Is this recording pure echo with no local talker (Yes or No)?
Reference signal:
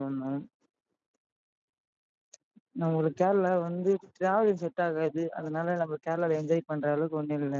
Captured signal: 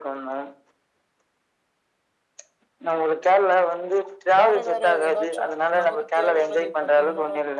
No